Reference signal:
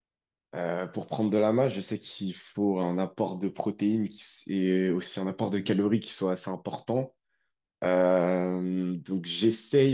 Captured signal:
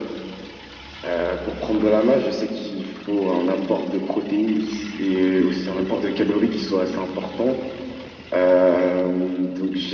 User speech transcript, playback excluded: none

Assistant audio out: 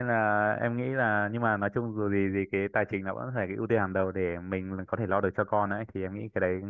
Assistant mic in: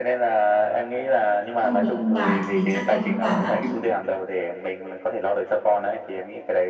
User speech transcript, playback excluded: không có ông bà thì chắc là vất vả lắm

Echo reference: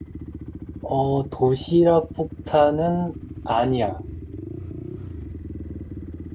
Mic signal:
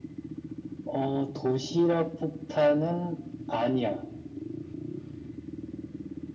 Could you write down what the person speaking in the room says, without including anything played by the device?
none

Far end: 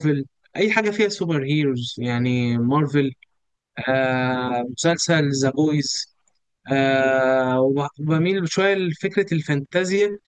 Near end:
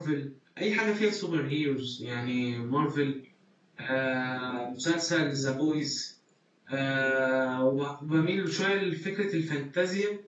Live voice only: none

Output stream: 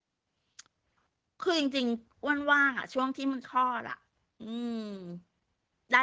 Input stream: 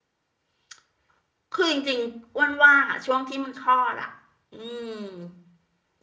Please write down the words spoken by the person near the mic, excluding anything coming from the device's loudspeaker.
none

